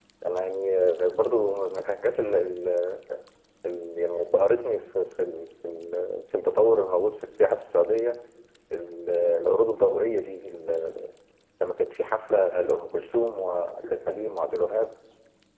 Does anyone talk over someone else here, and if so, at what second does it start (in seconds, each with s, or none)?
none